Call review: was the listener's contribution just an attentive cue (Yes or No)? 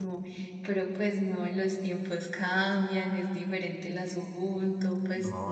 No